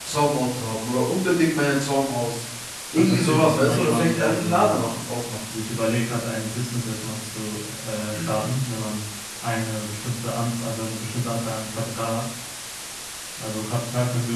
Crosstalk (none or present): present